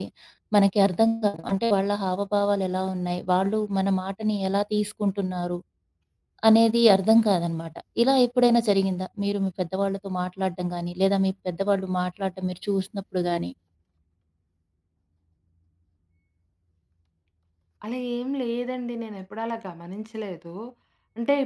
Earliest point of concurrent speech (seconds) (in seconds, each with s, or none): none